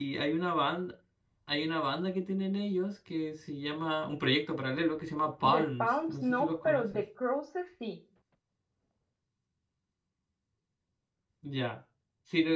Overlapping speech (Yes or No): Yes